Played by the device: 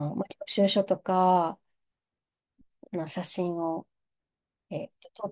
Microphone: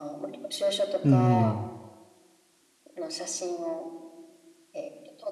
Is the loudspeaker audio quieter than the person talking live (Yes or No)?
Yes